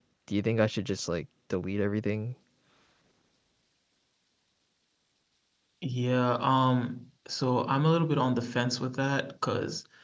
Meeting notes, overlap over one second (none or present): none